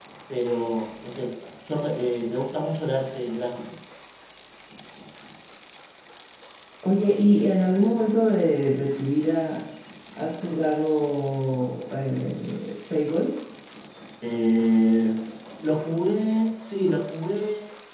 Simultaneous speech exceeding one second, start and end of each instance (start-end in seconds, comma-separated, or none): none